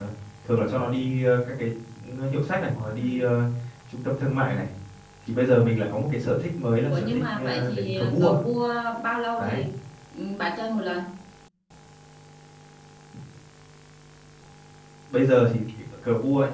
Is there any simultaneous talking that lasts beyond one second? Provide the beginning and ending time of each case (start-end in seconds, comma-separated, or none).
6.9-8.3